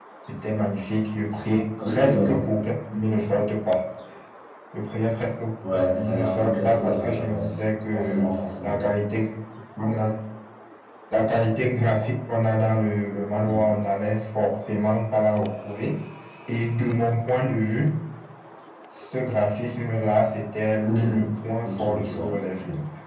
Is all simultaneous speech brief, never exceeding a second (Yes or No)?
No